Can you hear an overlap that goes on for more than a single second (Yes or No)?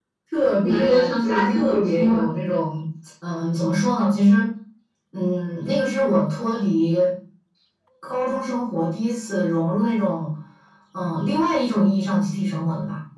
Yes